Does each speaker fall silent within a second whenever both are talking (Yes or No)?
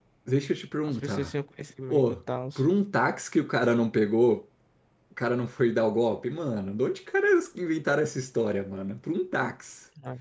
Yes